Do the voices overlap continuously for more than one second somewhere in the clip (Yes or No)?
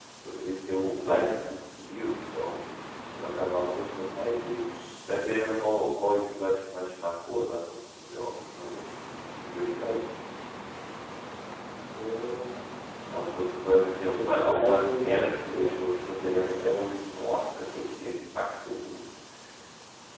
Yes